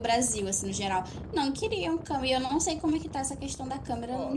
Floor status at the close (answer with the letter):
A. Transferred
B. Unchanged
A